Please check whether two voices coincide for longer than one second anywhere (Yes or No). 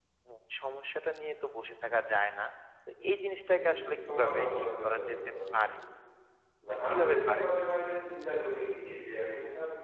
Yes